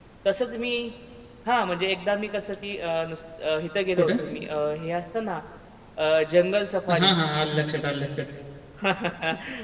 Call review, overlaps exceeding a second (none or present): none